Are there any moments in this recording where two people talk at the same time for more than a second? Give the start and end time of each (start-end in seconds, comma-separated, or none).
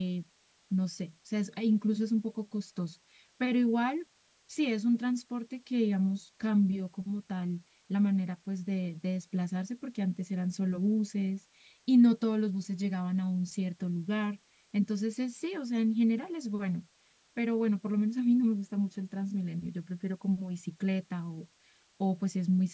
none